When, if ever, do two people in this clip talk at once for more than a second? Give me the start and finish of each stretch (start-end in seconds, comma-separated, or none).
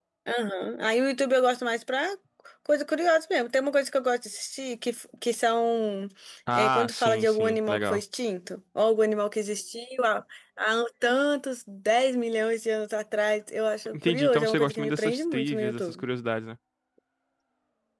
6.5-8.0, 13.9-16.0